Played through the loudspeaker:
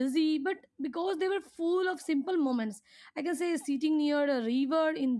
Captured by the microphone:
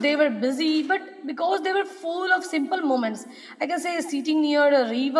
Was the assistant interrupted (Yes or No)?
No